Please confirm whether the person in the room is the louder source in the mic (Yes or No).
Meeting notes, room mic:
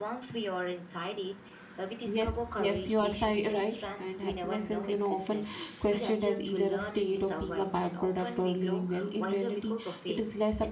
Yes